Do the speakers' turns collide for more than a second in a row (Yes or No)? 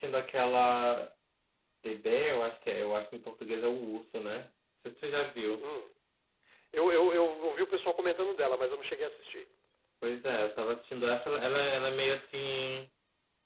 No